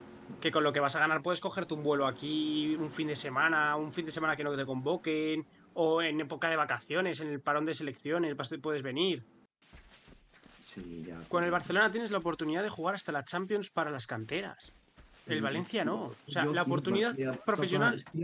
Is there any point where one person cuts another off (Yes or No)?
Yes